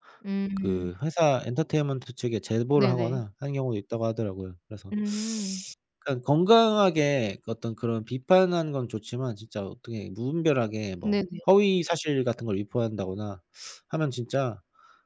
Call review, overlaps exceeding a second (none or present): none